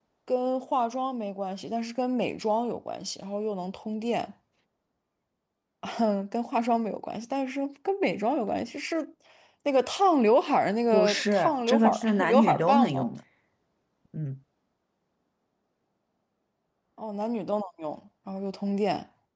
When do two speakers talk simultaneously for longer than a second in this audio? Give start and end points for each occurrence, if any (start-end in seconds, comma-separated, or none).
10.9-13.1